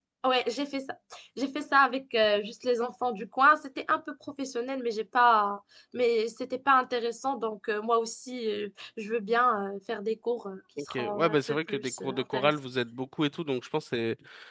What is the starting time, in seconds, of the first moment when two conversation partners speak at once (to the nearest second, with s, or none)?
11 s